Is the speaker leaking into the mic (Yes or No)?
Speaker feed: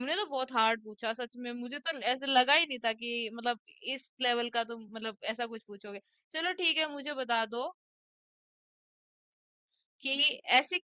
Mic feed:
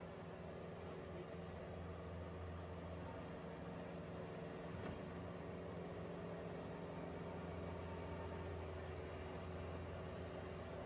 No